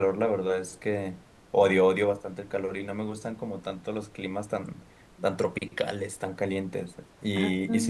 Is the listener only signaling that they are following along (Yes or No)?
Yes